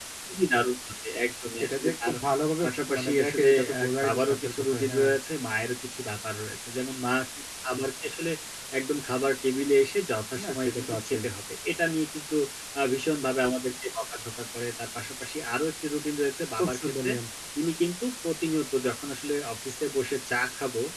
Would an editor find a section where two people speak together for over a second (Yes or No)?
Yes